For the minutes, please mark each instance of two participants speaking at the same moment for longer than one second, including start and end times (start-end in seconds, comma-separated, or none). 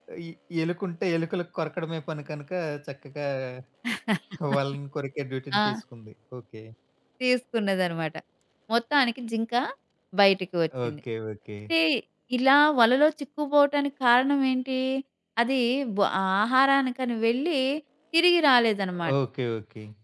none